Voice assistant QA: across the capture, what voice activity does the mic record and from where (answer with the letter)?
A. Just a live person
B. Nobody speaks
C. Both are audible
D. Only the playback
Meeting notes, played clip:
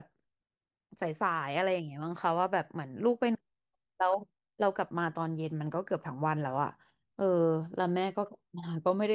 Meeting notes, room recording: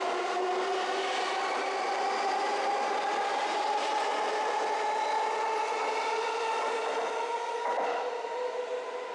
B